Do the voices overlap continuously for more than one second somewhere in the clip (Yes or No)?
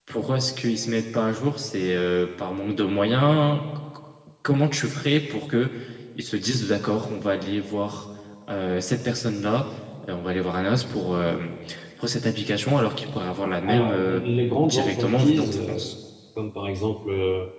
Yes